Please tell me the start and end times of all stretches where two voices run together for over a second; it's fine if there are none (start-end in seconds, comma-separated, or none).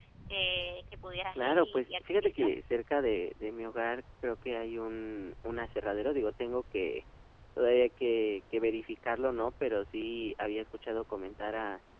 1.3-2.6